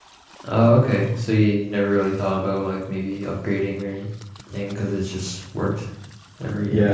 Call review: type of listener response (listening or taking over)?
taking over